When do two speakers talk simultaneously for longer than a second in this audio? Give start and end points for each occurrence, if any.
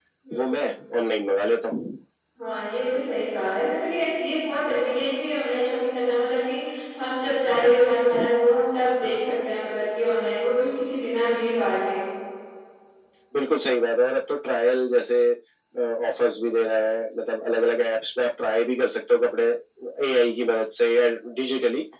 none

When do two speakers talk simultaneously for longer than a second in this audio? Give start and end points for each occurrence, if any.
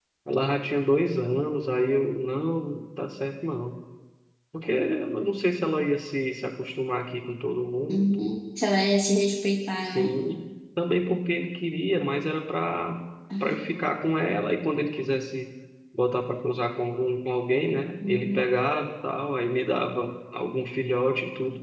none

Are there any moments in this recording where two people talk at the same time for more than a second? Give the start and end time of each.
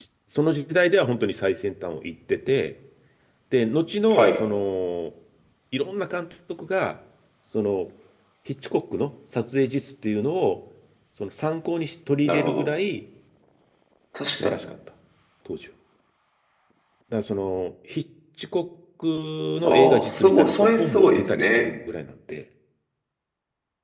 19.6-21.7

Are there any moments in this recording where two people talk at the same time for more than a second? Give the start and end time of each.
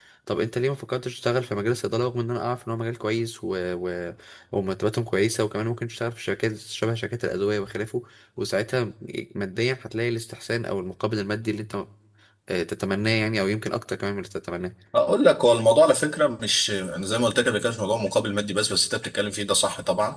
none

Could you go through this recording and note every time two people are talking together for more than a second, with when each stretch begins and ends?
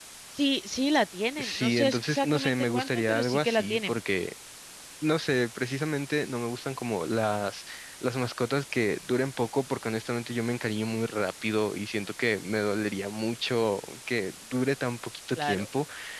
1.4-4.0

